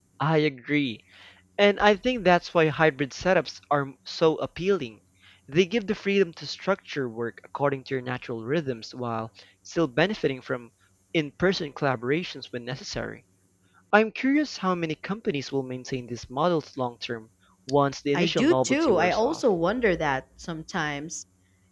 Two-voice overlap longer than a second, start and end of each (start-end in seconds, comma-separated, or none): 18.1-19.4